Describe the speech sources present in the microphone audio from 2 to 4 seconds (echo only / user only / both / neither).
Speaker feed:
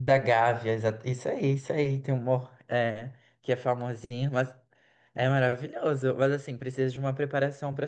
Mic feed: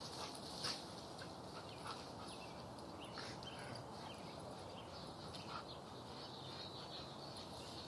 neither